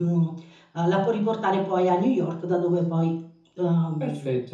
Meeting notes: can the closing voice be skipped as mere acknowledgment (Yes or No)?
No